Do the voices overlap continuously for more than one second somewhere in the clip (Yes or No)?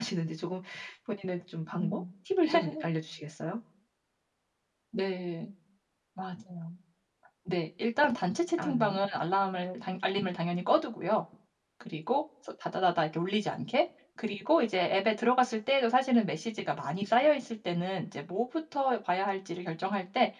No